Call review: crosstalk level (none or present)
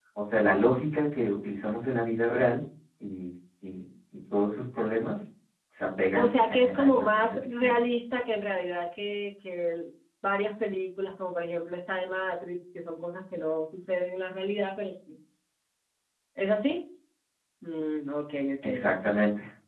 present